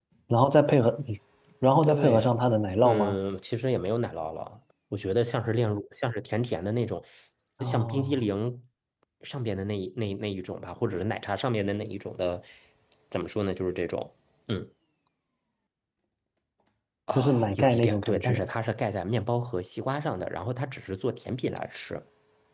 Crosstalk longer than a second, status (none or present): present